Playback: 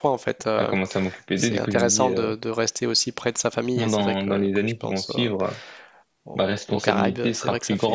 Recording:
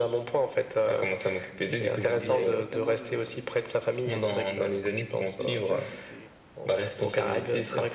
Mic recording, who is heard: both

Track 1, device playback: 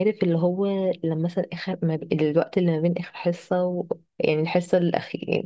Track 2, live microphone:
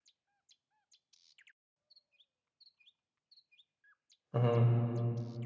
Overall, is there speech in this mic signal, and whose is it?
user only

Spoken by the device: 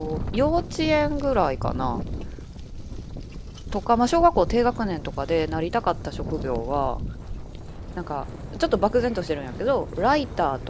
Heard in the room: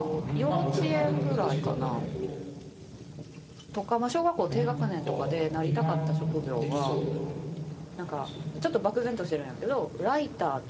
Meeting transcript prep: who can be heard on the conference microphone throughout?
both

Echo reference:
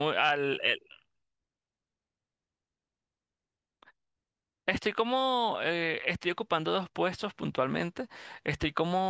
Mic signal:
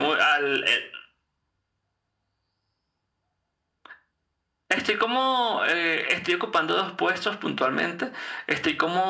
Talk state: echo only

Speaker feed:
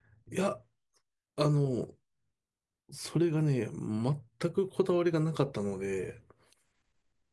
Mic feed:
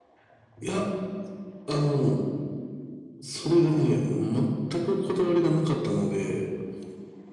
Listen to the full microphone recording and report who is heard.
echo only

